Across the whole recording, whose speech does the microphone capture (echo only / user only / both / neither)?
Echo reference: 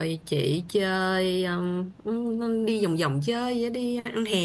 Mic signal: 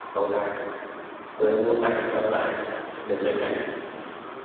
user only